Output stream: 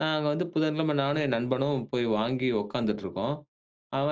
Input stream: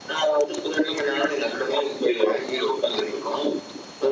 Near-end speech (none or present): none